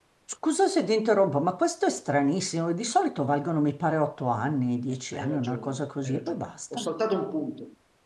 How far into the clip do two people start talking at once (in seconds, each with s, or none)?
5.1 s